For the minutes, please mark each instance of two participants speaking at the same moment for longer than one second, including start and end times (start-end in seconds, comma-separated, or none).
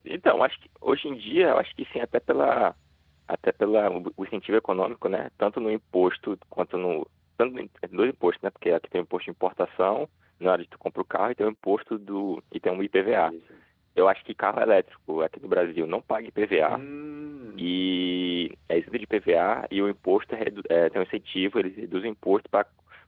none